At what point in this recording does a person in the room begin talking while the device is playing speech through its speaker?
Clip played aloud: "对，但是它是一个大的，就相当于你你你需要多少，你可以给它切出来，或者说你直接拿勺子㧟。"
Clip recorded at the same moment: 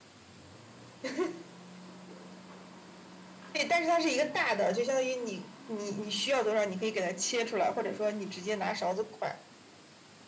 none

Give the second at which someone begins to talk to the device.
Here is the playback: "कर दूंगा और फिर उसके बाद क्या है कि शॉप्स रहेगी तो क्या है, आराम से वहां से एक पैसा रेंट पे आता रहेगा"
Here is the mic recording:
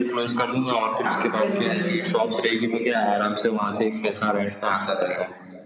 1.0 s

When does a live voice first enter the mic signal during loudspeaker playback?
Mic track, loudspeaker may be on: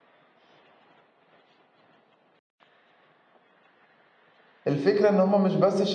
4.7 s

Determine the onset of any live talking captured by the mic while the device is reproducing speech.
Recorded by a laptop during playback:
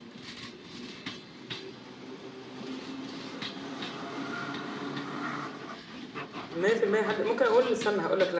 6.4 s

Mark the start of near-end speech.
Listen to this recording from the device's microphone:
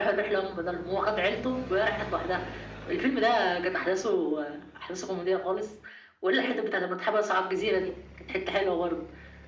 none

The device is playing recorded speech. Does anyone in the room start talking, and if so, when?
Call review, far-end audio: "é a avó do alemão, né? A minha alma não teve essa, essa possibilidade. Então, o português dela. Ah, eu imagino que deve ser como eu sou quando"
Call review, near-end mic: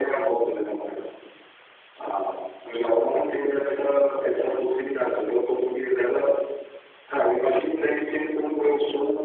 none

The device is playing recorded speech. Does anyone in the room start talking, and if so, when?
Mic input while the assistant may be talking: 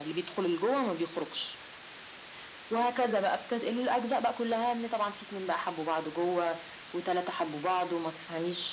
none

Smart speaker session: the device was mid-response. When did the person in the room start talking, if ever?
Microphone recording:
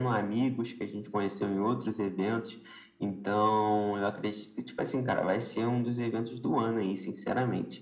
none

